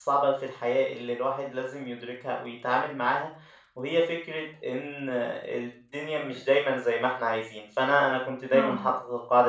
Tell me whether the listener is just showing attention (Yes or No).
Yes